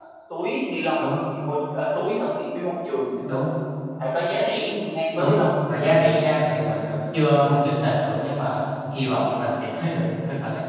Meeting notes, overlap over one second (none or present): none